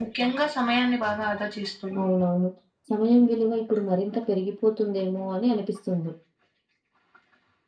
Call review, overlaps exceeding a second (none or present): none